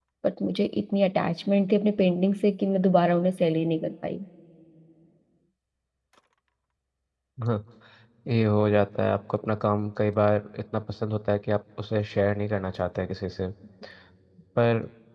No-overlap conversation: Yes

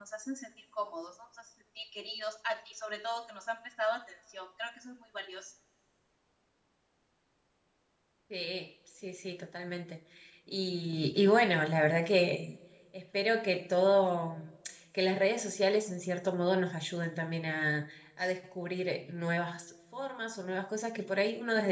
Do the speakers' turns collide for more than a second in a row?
No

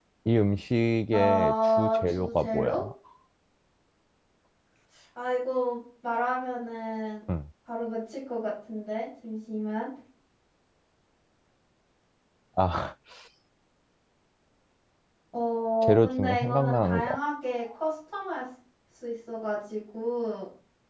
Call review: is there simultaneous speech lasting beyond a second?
Yes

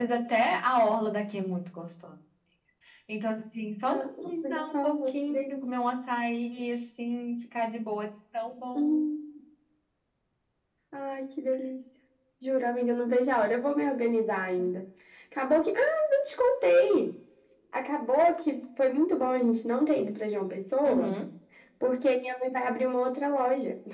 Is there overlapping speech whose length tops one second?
Yes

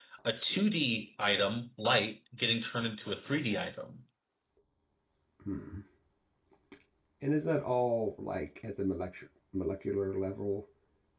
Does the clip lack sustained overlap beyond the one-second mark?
Yes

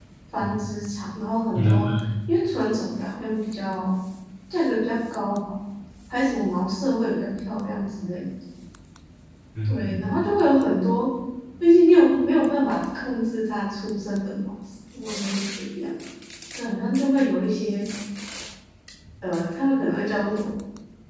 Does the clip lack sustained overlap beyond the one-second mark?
Yes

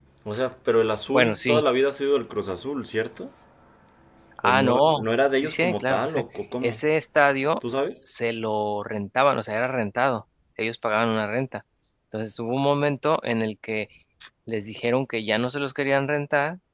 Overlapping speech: Yes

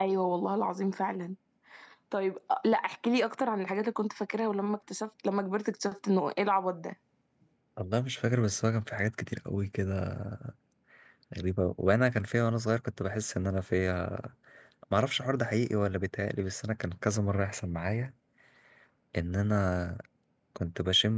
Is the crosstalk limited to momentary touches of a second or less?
Yes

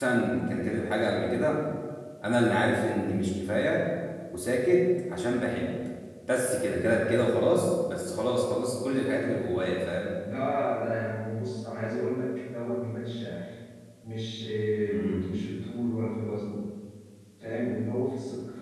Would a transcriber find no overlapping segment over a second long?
Yes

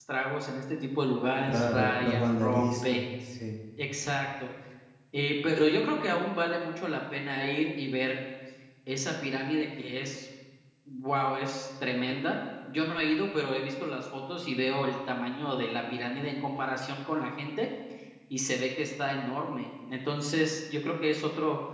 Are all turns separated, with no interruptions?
No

